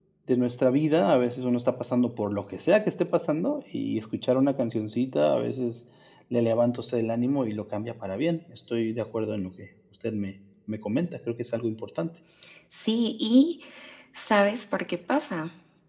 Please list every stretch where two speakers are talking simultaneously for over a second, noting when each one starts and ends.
none

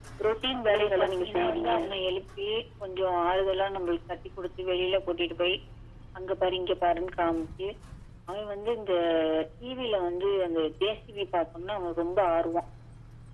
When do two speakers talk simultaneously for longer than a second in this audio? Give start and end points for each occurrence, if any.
0.5-1.8

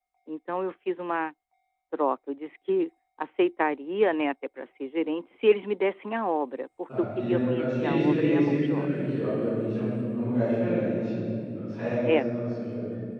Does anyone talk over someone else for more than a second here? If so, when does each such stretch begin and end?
7.0-8.9

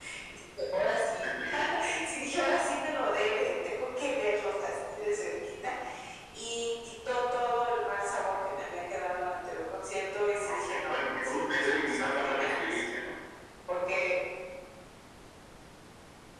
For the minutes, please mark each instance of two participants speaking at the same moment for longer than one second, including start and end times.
10.4-12.8

